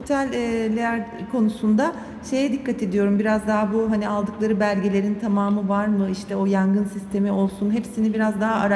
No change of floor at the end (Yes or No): Yes